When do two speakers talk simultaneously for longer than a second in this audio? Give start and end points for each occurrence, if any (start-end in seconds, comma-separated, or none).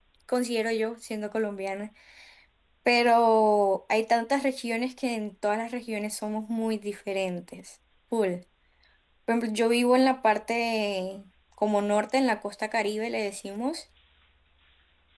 none